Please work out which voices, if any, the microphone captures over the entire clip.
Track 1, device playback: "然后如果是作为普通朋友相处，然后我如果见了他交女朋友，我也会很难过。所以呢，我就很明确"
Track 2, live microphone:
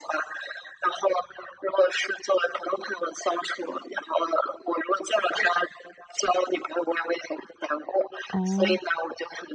both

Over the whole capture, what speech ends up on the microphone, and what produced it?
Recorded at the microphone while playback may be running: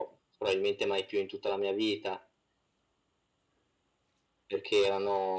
echo only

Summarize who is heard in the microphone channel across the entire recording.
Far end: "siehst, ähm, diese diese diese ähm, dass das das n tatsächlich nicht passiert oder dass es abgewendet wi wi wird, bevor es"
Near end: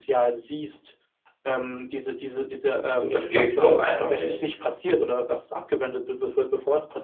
both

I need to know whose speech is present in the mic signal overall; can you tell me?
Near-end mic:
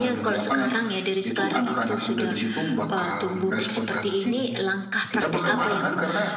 both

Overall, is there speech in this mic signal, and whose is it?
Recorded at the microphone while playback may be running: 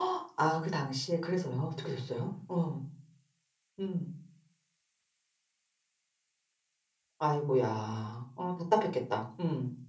user only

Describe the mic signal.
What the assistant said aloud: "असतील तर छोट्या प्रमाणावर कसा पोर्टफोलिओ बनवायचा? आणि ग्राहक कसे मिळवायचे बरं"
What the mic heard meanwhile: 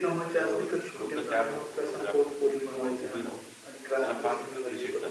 both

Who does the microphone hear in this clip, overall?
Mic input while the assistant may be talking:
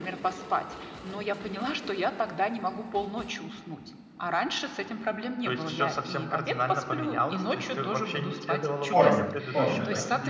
both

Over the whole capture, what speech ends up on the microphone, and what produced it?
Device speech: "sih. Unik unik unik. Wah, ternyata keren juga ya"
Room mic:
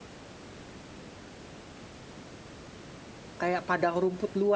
user only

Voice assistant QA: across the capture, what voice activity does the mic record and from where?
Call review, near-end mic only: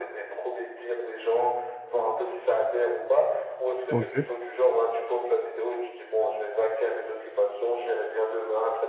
both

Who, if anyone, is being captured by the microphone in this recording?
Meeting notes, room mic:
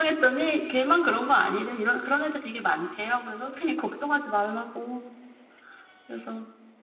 user only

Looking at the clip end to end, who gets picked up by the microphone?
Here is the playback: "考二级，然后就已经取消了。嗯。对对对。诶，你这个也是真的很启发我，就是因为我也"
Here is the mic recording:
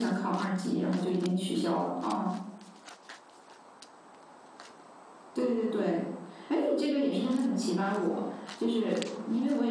echo only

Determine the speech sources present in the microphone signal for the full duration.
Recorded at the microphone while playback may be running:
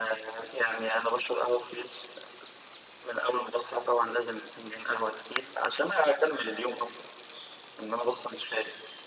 echo only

